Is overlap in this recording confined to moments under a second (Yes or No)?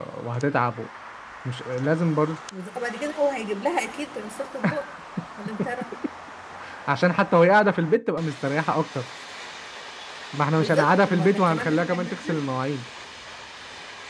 No